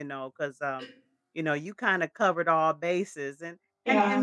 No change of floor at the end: Yes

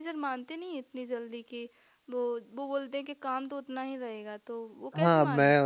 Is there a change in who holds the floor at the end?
Yes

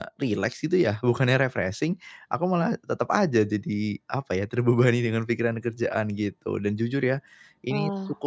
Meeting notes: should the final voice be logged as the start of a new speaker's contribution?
No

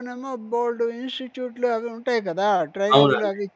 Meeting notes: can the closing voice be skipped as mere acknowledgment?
Yes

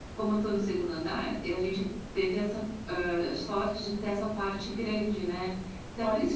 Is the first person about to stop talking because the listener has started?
No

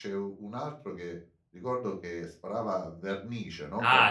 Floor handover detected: Yes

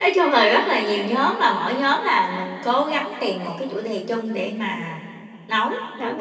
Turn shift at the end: Yes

